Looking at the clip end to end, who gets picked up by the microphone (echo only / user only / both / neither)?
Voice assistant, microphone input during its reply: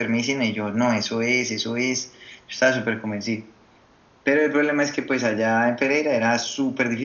echo only